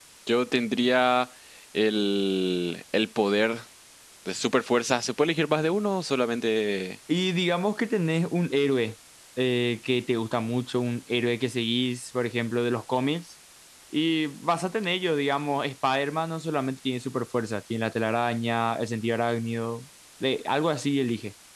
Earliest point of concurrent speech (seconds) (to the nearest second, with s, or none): none